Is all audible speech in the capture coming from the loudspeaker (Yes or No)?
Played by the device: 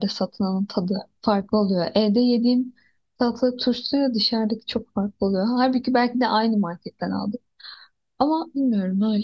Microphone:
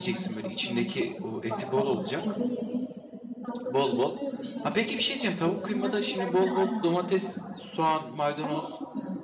No